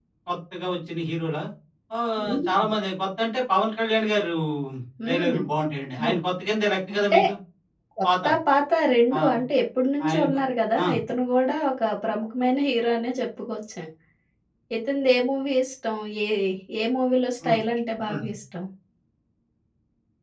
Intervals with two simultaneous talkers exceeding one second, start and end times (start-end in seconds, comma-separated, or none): none